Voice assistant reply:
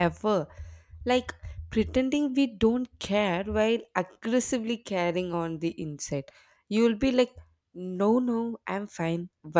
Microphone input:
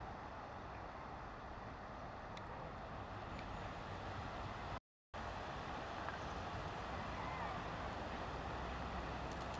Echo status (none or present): none